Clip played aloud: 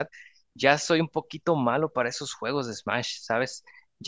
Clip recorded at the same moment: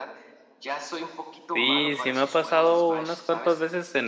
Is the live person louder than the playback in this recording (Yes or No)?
Yes